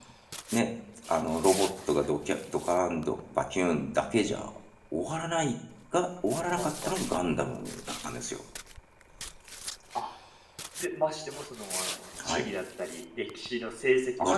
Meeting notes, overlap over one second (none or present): none